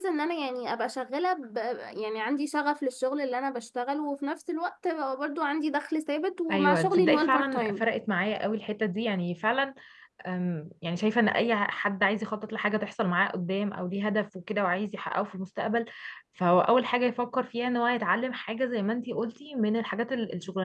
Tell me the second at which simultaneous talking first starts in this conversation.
6.5 s

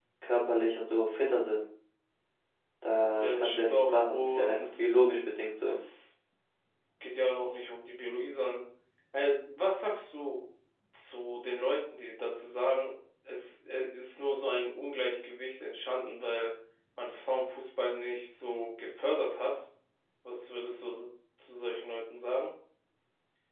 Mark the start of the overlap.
3.2 s

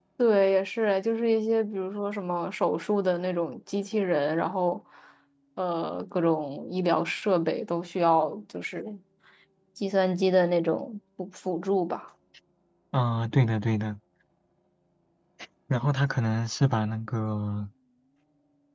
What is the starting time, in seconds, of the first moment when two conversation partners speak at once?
none

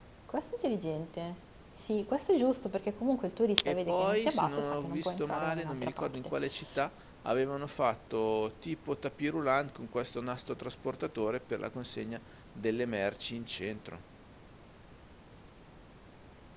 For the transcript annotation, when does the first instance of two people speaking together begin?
3.6 s

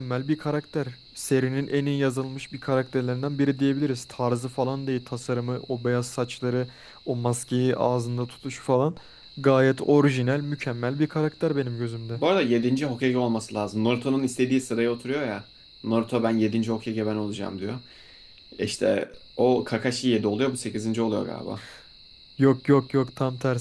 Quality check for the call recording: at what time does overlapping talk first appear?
none

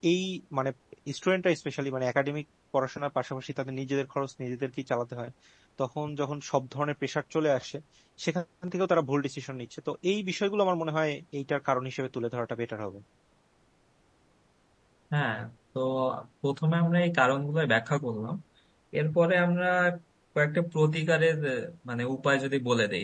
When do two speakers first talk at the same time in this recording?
none

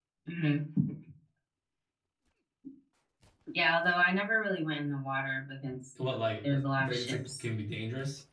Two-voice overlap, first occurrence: 6.0 s

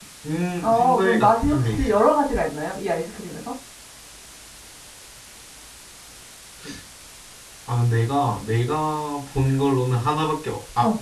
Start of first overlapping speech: 0.6 s

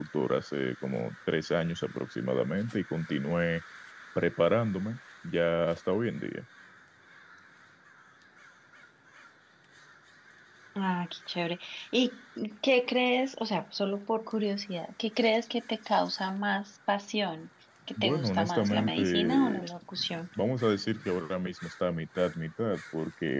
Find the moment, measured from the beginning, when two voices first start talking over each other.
18.0 s

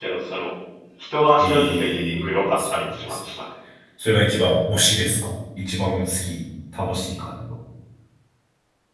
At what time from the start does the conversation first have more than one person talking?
1.4 s

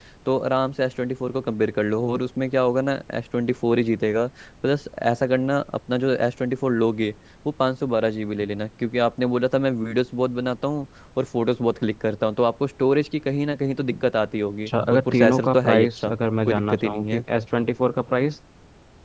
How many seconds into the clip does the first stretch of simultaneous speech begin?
14.7 s

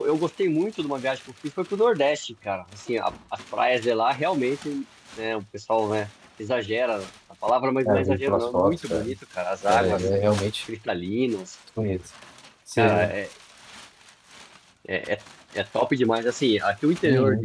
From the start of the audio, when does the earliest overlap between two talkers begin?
7.8 s

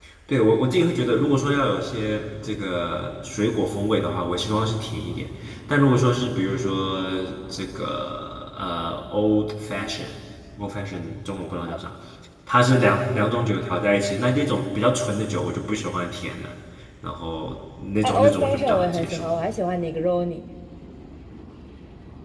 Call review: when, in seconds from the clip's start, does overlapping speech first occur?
18.0 s

